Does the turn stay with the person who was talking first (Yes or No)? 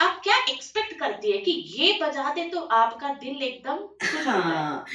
No